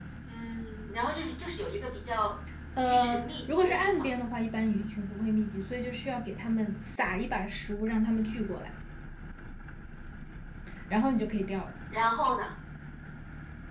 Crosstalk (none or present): present